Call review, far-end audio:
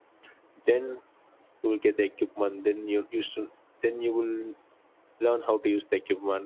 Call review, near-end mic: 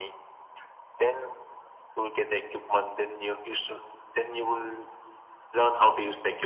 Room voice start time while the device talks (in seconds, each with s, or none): none